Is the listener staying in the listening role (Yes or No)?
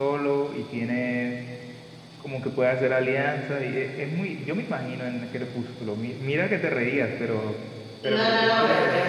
No